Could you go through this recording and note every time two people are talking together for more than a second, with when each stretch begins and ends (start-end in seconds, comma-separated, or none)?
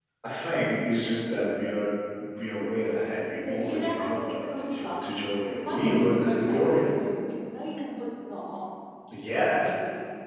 3.4-5.0, 5.5-7.0